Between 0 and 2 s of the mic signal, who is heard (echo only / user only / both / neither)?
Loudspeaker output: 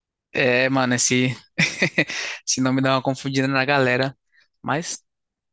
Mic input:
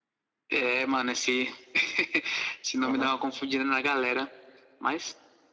echo only